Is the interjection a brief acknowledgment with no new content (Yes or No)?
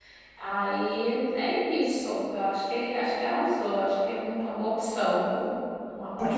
No